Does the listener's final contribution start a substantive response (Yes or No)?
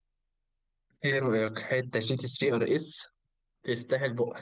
Yes